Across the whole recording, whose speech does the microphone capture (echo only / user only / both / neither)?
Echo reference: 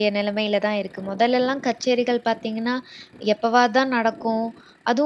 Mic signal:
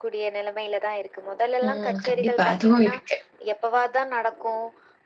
both